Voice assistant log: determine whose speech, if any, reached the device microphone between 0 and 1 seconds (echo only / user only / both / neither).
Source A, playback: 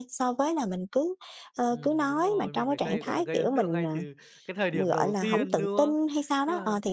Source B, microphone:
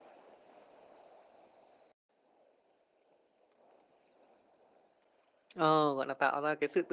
neither